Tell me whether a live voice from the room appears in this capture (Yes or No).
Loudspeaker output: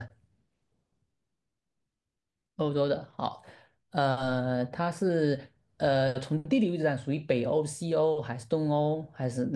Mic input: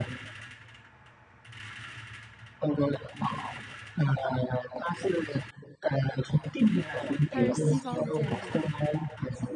Yes